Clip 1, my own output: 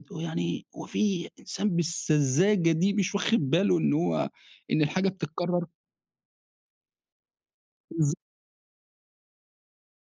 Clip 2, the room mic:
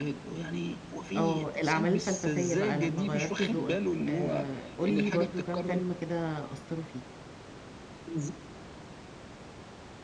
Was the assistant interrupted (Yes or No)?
Yes